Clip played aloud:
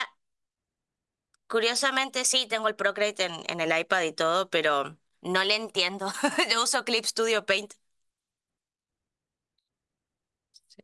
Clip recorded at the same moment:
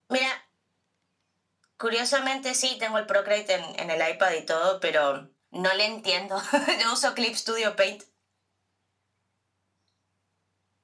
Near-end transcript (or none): none